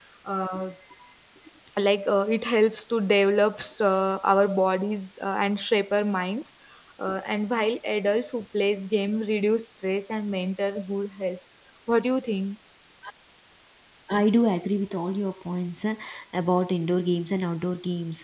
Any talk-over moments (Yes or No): No